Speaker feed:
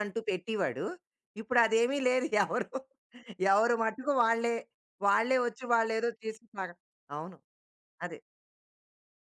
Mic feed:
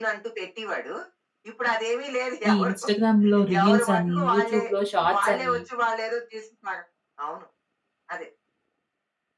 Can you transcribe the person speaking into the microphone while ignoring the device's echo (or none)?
ఈ ఇన్‌స్టాగ్రామ్‌లో రీల్స్ అని, యూట్యూబ్‌లో షార్ట్స్ అని,